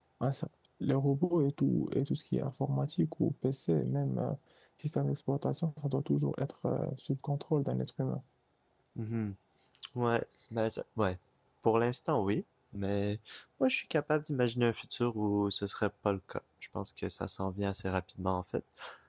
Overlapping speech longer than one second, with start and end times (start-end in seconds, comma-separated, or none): none